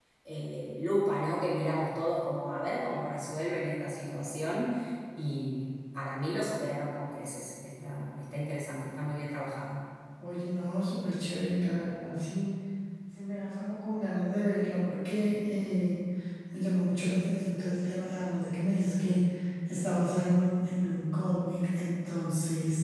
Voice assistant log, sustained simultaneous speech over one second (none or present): none